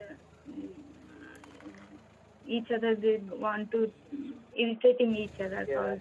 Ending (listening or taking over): listening